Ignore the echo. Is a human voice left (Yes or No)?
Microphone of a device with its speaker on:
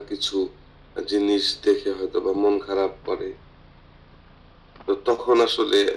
No